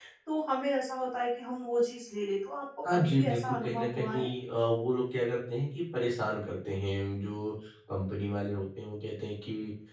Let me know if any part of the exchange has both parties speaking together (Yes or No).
Yes